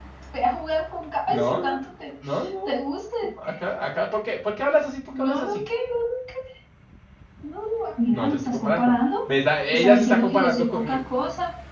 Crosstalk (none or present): present